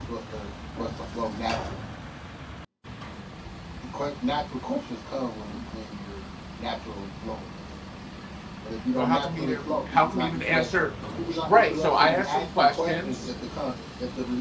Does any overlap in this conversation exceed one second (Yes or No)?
Yes